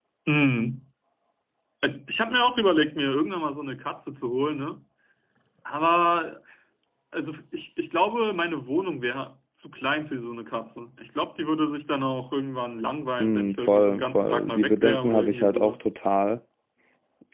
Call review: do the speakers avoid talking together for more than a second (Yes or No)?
No